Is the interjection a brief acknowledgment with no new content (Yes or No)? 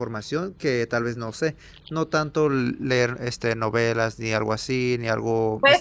No